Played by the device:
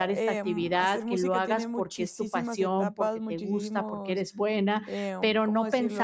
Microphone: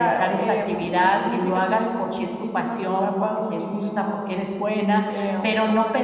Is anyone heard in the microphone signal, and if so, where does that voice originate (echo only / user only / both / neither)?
echo only